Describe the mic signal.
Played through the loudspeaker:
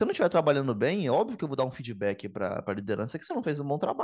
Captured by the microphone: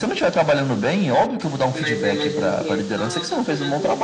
both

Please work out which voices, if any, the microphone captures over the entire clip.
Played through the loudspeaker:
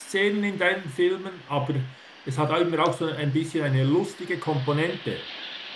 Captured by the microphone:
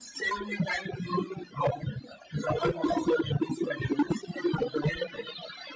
echo only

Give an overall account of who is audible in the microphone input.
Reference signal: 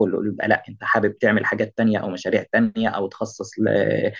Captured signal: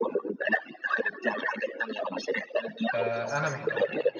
both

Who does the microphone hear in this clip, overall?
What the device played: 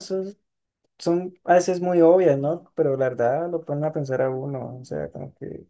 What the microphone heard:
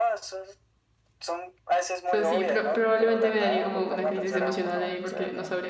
both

